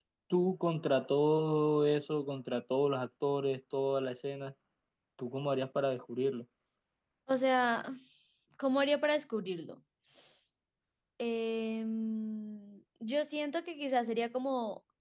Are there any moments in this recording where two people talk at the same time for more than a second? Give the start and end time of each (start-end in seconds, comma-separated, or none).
none